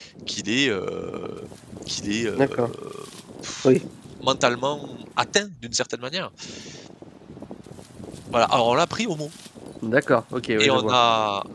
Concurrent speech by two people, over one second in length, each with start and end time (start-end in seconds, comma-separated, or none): none